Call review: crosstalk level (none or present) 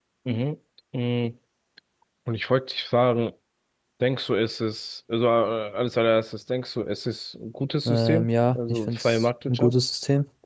present